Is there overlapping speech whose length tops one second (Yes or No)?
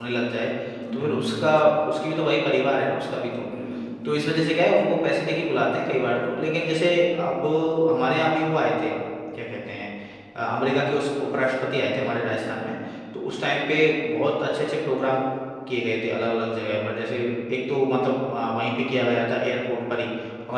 No